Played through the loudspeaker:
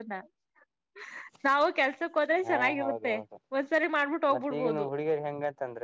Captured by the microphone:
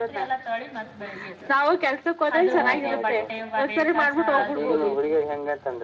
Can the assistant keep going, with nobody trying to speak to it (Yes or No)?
No